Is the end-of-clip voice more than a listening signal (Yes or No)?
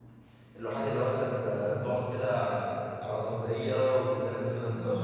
Yes